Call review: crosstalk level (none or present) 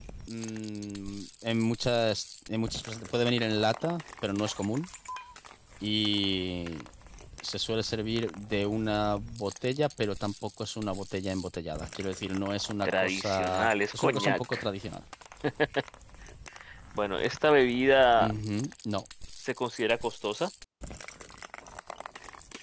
present